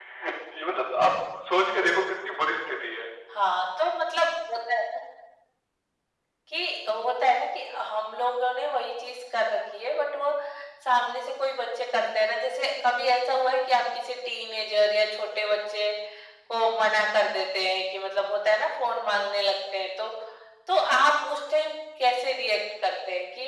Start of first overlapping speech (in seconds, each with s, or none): none